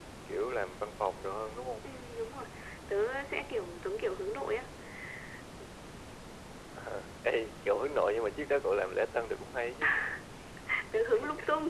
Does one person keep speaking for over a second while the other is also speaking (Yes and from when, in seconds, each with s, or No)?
No